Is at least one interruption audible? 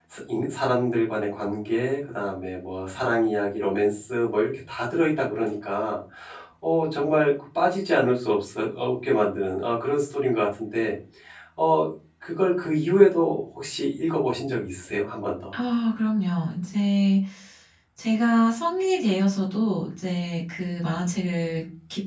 No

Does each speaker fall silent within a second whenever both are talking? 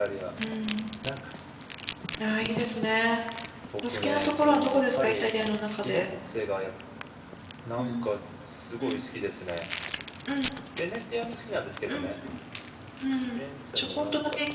No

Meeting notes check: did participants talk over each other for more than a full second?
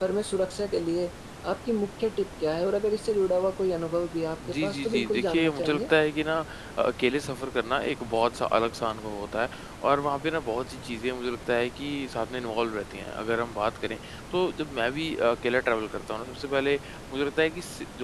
Yes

